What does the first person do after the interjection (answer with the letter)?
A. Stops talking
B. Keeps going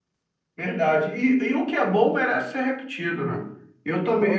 B